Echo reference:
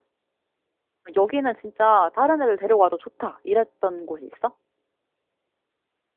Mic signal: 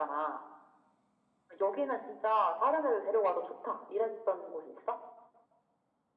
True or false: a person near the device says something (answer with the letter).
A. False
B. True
A